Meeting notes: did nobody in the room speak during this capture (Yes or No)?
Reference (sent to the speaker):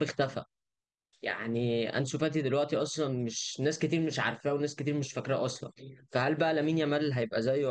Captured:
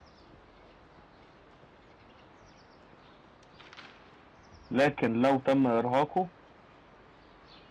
No